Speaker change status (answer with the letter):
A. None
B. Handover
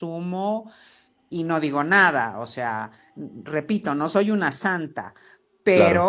A